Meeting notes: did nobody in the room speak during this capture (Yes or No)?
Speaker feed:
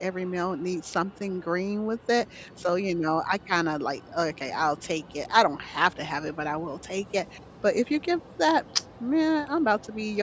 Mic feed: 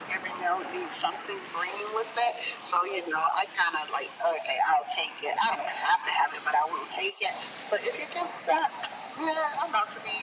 Yes